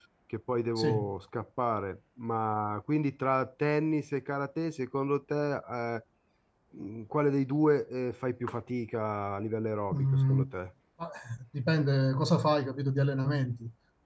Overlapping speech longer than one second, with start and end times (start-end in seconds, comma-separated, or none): none